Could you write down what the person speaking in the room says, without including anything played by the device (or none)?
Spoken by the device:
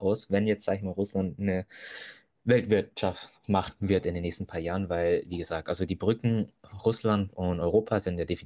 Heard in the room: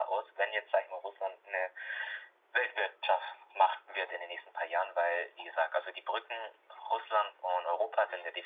none